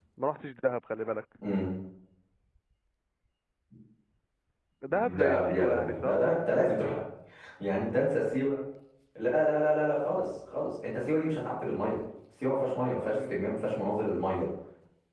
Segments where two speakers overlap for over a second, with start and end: 4.9-6.2

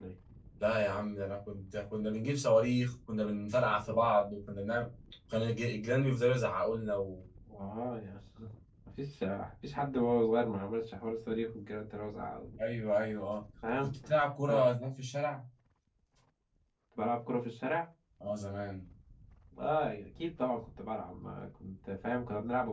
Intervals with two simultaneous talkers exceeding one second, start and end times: none

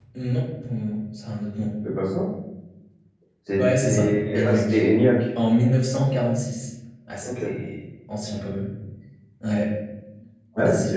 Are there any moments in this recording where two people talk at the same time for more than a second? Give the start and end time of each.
3.6-4.8

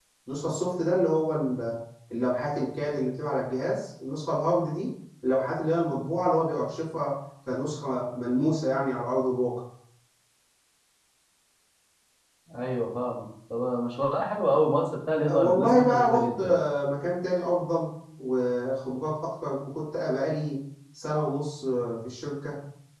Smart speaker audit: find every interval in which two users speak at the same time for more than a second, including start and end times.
15.3-16.6

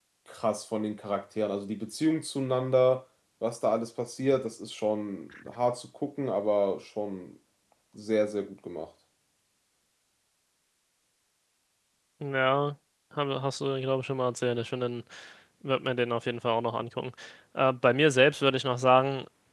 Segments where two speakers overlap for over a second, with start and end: none

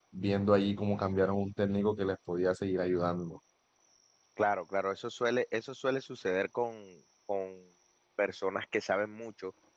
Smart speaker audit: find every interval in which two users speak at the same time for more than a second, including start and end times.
none

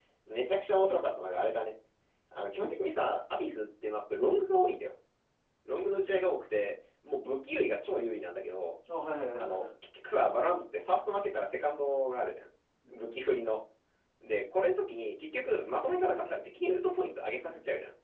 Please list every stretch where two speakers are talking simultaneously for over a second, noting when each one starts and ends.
none

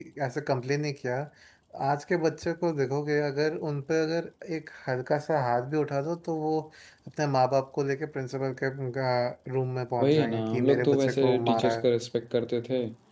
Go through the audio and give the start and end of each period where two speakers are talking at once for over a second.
10.0-11.8

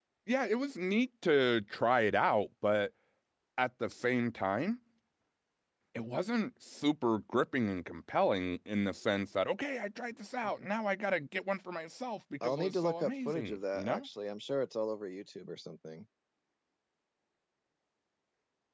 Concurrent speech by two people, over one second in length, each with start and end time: 12.4-14.1

